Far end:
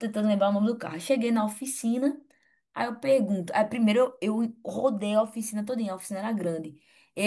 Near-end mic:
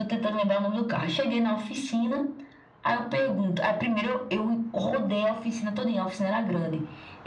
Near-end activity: none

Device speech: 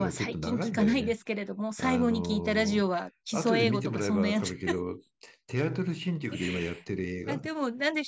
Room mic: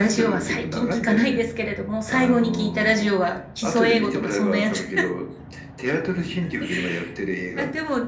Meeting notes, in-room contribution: none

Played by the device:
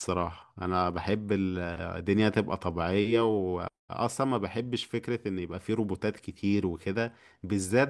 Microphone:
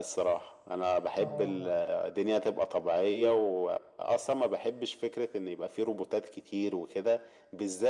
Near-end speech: present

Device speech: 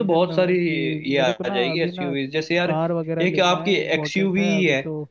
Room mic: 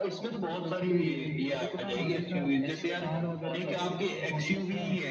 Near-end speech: present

